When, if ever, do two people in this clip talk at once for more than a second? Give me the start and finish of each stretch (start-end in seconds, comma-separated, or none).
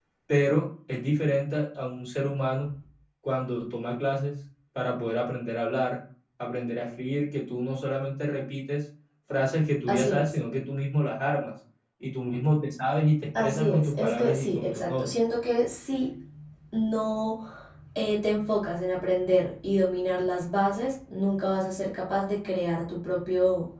13.4-15.0